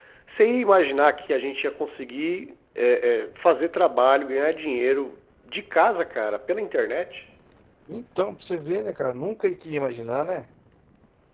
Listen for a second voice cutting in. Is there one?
No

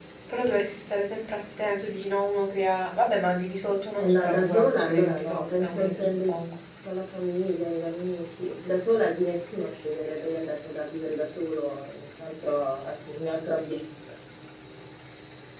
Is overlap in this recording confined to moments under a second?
No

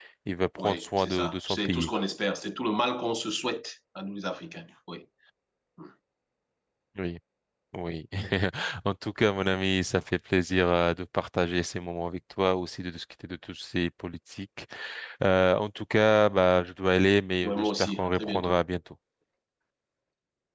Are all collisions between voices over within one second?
No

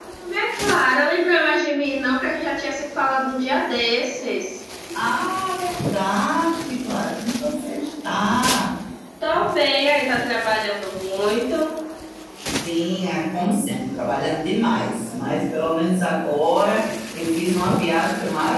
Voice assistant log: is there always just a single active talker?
Yes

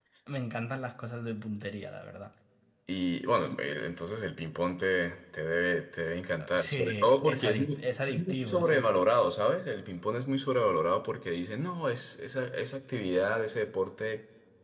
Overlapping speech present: Yes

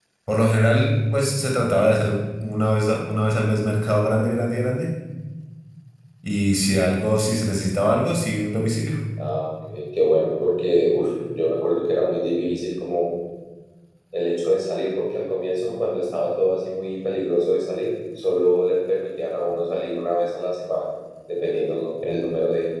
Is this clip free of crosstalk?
Yes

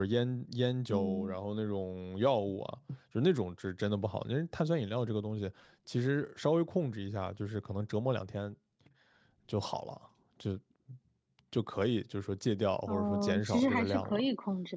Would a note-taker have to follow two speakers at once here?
Yes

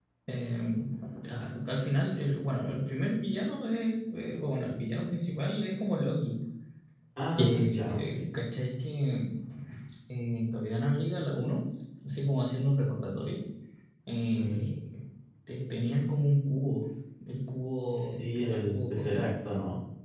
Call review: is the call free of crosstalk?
No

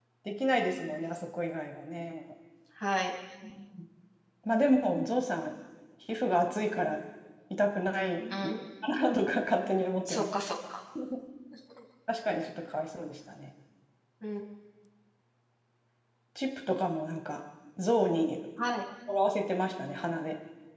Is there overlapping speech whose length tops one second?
No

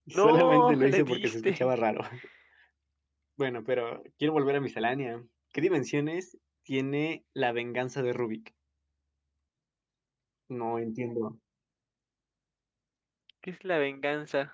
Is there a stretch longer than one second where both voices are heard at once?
Yes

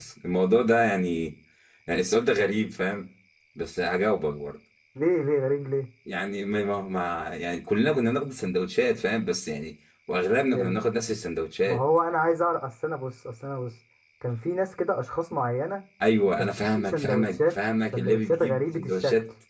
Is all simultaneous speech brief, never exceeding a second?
No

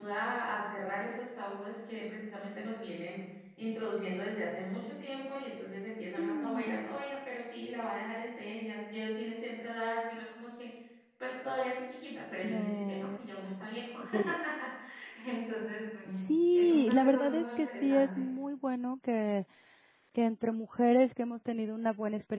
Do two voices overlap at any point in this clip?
Yes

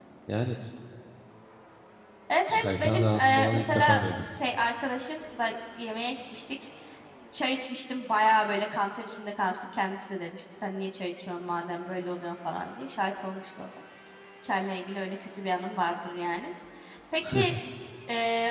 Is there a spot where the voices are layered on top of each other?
Yes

